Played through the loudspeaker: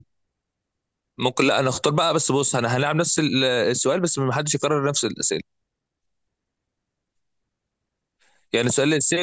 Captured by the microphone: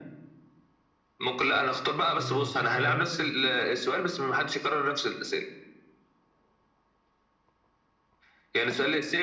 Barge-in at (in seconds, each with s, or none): 2.1 s